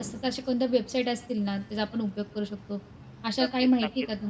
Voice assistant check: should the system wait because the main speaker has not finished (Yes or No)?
No